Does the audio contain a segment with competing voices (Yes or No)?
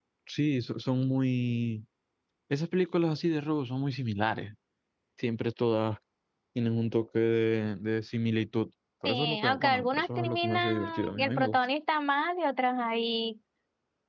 Yes